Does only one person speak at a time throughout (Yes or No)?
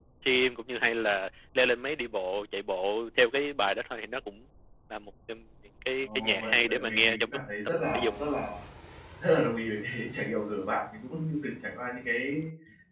No